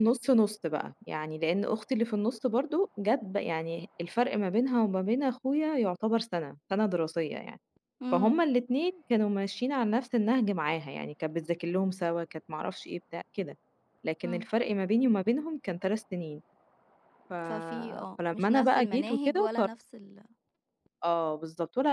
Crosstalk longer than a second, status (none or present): present